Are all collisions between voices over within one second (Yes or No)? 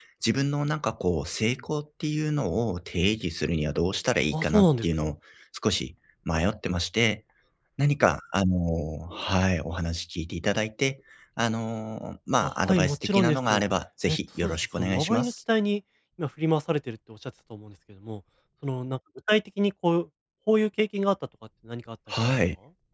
No